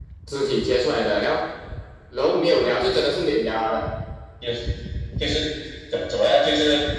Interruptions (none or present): none